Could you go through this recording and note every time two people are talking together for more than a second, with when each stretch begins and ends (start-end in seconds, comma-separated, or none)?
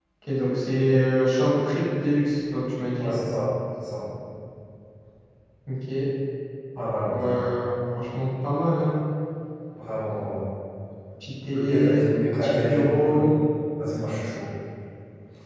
11.5-13.2